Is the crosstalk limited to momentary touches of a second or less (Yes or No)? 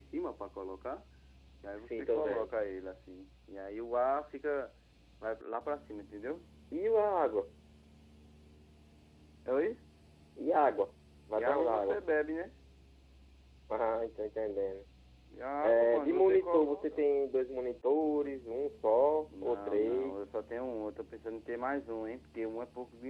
No